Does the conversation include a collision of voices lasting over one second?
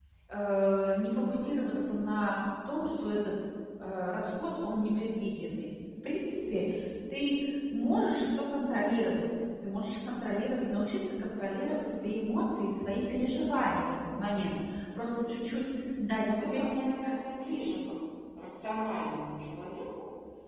No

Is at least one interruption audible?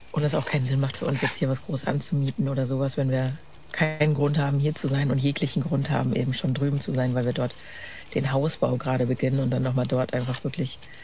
No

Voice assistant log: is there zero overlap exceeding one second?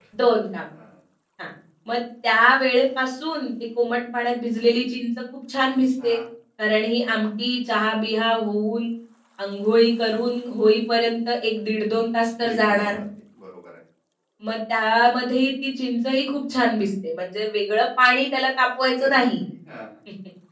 Yes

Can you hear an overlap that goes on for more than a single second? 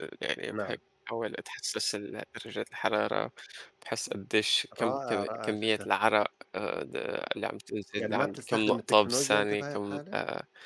Yes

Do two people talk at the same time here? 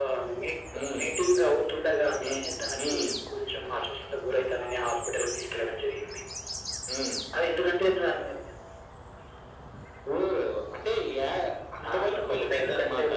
Yes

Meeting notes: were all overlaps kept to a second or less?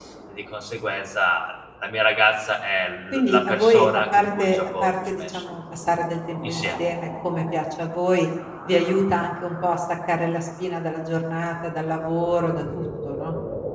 No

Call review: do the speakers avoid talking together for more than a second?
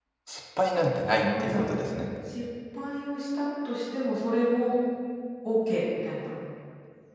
Yes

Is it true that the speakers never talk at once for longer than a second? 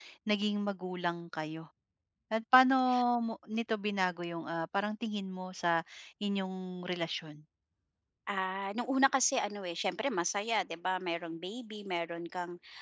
Yes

